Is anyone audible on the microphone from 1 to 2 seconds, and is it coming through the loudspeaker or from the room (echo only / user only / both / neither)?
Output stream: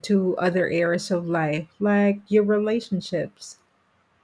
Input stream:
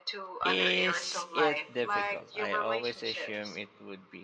both